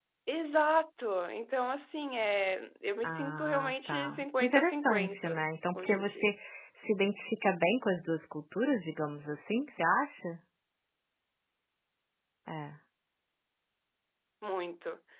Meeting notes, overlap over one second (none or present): present